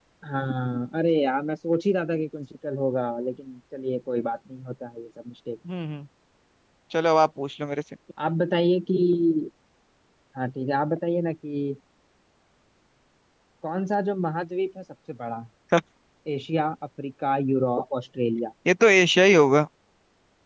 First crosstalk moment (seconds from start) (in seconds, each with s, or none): none